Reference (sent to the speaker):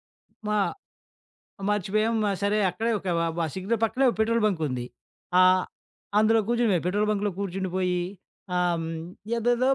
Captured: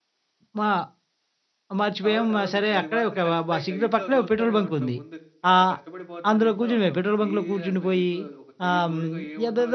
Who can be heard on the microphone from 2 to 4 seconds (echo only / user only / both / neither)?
both